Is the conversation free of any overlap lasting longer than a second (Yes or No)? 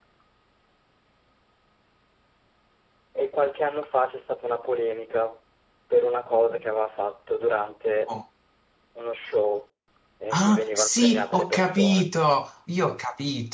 No